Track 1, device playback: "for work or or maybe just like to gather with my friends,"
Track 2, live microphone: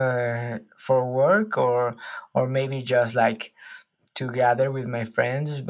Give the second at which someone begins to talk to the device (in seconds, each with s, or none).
none